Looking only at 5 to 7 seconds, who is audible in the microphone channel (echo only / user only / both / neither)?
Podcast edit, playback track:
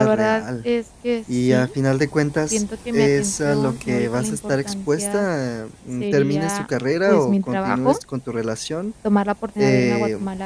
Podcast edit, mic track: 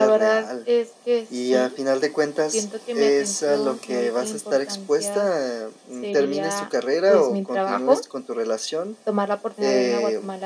echo only